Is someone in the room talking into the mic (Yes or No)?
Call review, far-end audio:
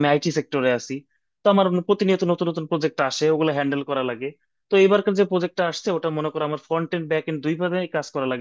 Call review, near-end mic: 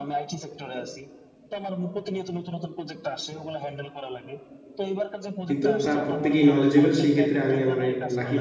Yes